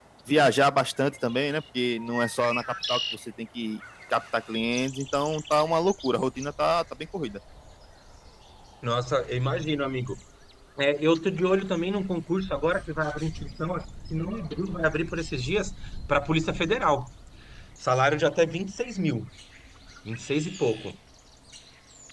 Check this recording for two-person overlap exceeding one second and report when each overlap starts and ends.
none

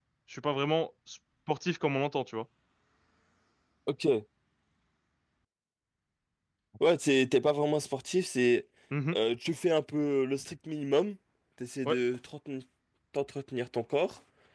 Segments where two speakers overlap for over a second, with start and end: none

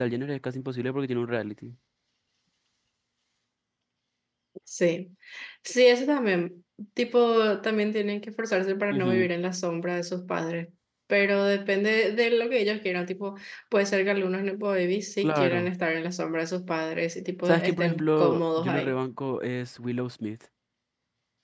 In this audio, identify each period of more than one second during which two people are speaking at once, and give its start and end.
17.4-19.0

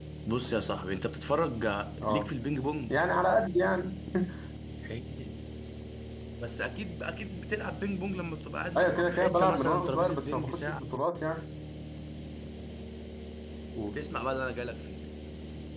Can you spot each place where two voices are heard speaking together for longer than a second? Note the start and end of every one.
8.8-10.8

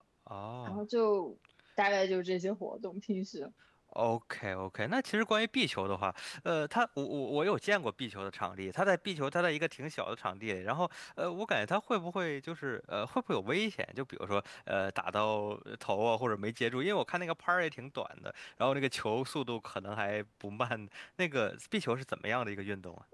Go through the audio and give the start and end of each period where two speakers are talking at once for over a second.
none

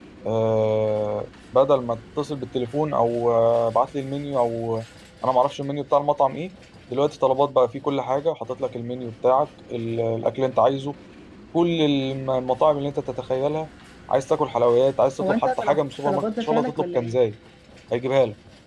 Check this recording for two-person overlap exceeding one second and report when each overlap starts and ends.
15.2-17.2

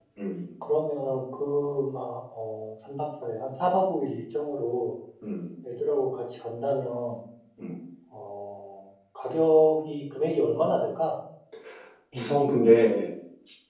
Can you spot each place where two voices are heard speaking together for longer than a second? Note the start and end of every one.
none

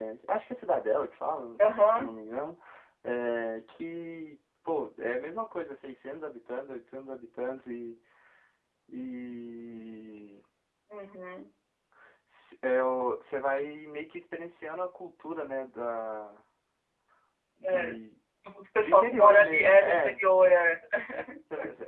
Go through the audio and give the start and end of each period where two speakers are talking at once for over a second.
18.8-20.2

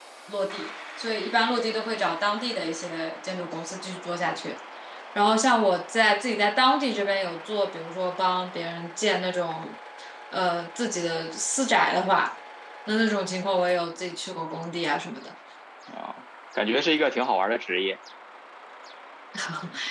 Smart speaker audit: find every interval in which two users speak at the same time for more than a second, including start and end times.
none

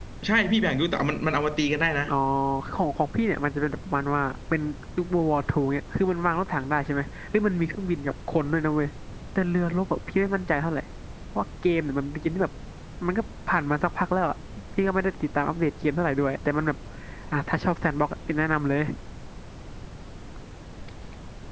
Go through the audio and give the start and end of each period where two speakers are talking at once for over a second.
none

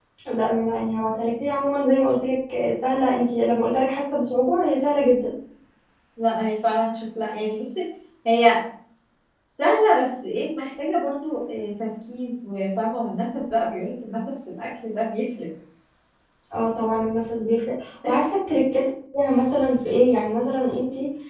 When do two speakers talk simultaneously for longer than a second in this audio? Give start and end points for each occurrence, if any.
none

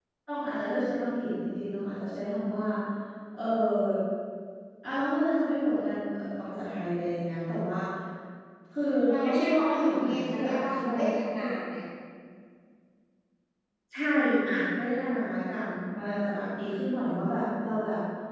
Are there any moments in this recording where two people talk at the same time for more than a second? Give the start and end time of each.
9.2-11.4

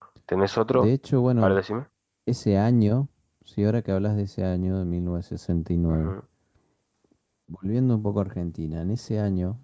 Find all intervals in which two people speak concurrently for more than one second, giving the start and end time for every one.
none

